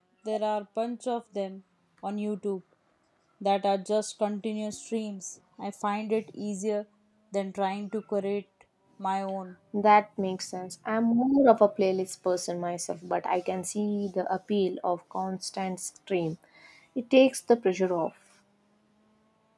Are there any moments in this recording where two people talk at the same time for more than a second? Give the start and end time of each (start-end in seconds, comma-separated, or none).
none